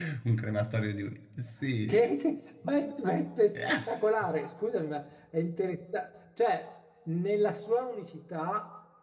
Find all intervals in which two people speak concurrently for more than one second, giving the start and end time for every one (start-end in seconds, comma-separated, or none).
none